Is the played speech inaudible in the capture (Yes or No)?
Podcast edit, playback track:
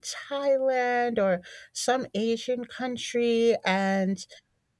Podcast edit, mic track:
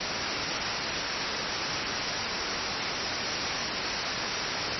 Yes